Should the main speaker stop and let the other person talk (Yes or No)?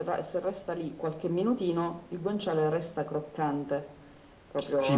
Yes